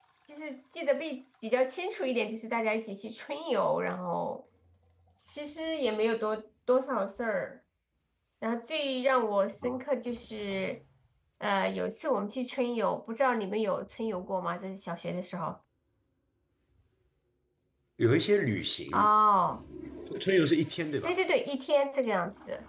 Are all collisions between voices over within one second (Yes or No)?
Yes